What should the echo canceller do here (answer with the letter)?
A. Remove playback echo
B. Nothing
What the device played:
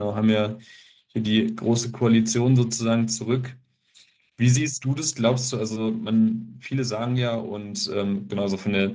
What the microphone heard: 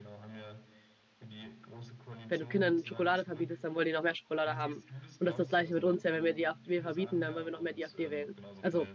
A